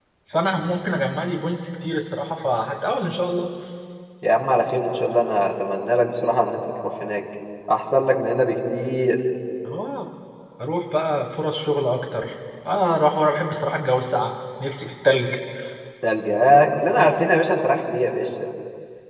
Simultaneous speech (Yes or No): No